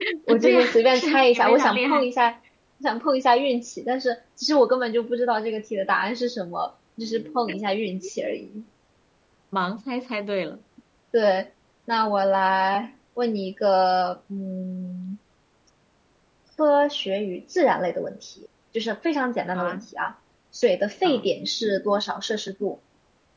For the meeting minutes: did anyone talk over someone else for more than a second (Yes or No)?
Yes